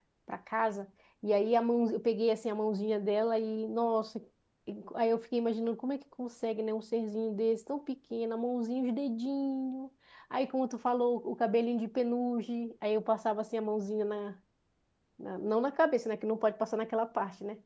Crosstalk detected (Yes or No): No